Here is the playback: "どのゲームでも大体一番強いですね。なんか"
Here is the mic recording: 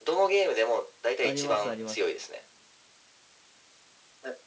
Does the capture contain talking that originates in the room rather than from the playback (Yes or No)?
Yes